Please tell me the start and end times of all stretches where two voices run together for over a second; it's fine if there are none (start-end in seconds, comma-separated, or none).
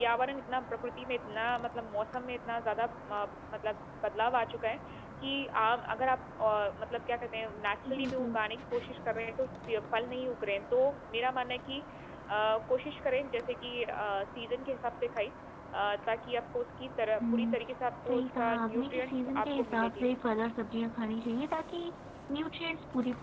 18.1-20.1